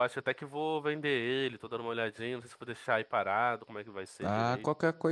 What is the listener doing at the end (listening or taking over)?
taking over